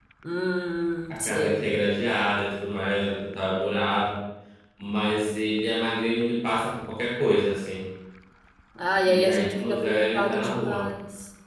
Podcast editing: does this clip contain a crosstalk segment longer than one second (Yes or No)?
Yes